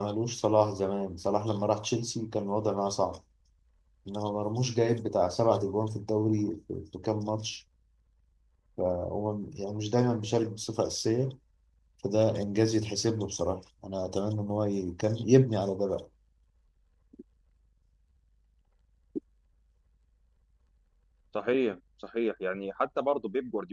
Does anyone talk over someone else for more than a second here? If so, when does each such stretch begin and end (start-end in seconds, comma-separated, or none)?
none